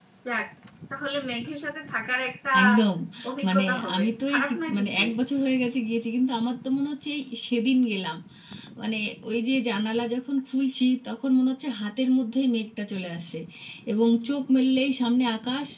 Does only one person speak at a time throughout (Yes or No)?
No